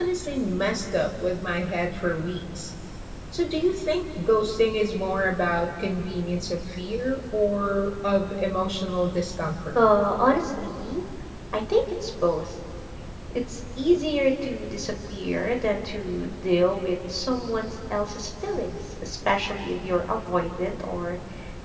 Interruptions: none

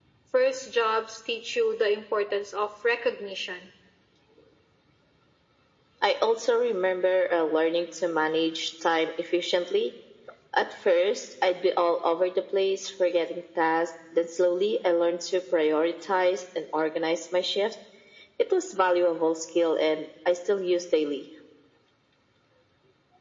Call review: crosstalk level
none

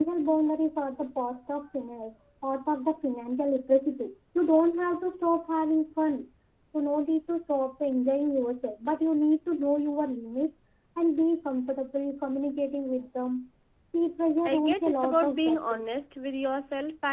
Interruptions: present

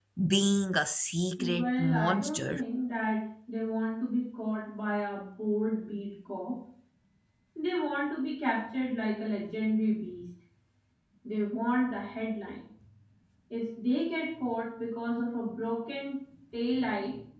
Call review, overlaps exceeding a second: present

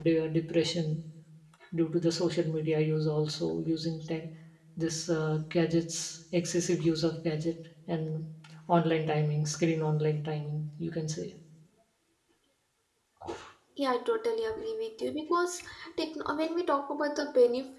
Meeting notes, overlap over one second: none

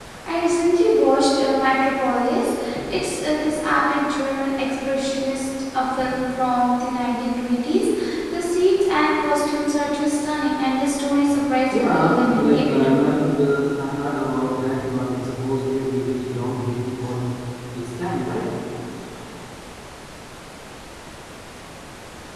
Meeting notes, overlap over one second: present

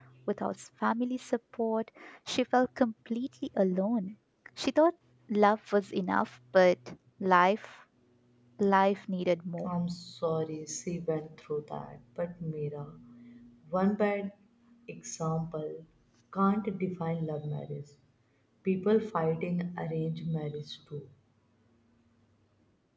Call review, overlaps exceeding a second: none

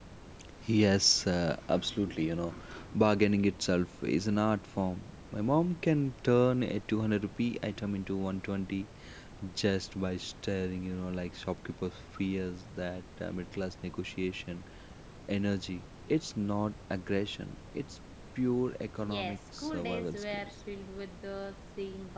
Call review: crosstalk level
present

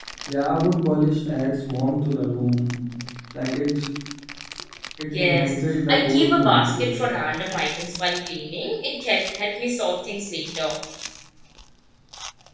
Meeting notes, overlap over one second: present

